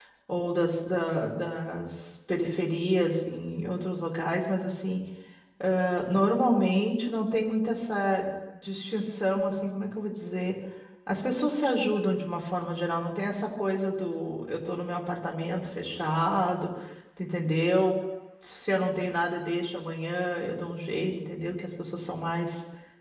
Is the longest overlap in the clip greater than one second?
No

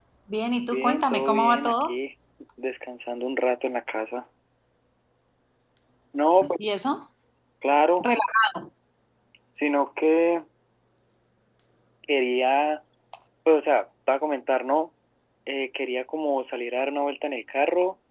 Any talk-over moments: Yes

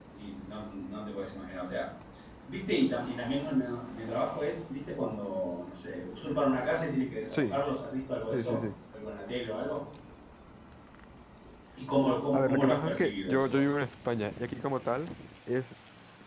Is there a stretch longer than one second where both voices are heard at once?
Yes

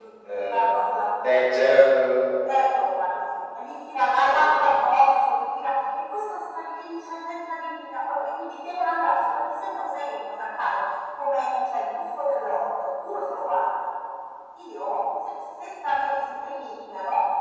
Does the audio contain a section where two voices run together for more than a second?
No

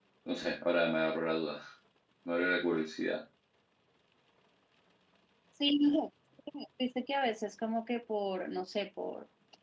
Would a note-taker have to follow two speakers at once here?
No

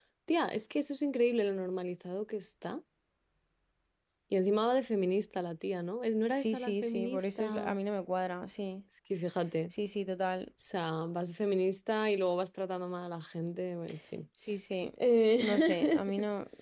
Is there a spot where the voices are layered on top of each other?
Yes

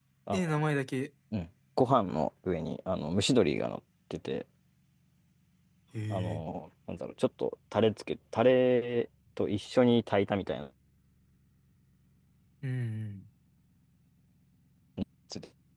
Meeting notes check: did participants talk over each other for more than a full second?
No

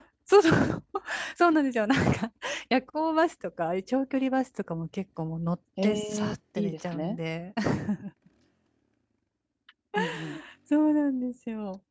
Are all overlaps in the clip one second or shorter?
No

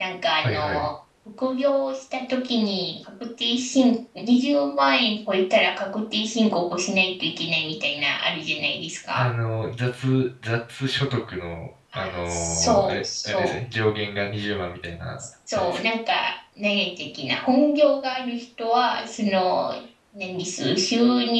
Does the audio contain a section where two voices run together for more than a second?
Yes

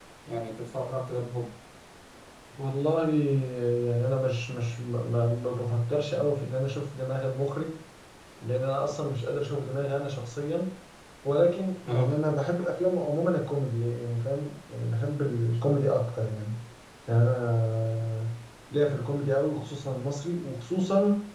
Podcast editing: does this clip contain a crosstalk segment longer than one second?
No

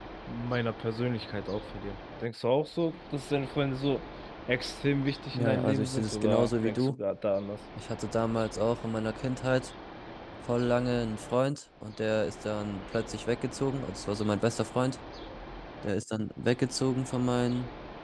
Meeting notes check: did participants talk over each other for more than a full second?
Yes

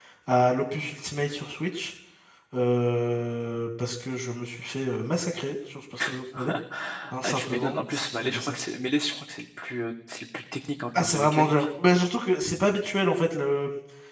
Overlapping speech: Yes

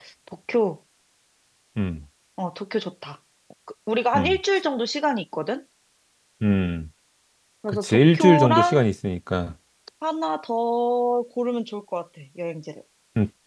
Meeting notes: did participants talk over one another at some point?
Yes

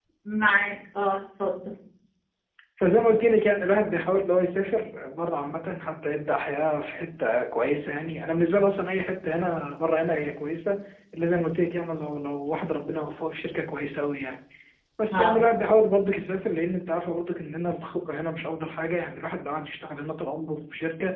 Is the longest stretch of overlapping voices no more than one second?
Yes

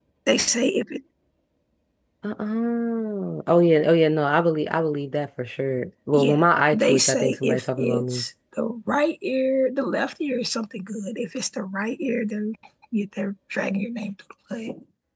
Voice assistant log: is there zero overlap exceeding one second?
No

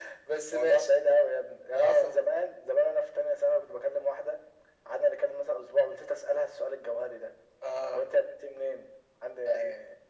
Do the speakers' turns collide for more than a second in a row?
No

